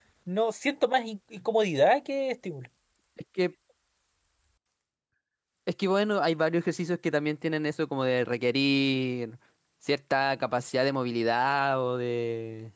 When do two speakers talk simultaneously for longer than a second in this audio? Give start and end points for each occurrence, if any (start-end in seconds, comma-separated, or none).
none